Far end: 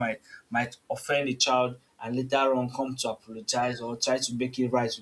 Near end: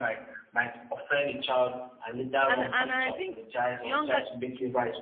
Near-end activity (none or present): present